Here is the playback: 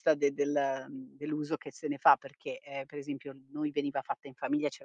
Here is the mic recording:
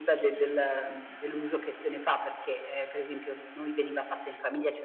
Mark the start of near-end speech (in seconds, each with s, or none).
none